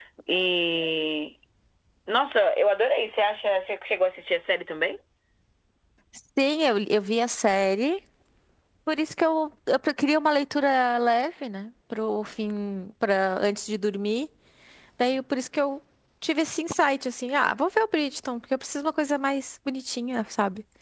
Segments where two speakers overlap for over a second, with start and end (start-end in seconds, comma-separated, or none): none